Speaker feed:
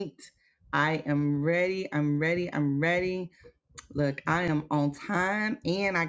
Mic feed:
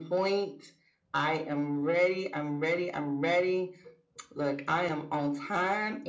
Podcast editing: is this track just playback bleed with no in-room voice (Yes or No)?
Yes